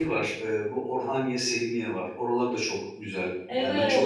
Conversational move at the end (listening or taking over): taking over